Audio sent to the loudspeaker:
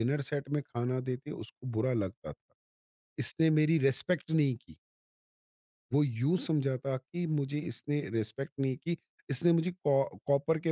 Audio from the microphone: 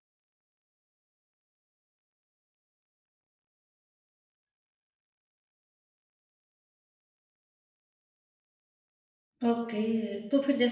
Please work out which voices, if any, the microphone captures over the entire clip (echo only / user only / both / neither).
user only